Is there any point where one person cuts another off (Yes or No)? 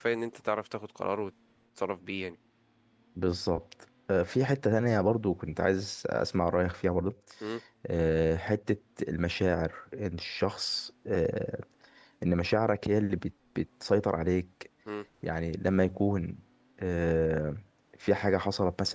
No